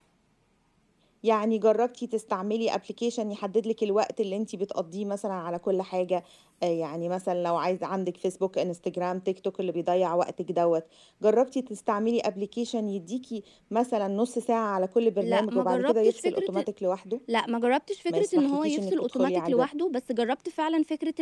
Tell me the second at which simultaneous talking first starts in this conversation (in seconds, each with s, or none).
15.2 s